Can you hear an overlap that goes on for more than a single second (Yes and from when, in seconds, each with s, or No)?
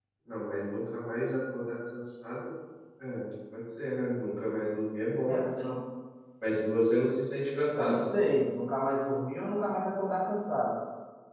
No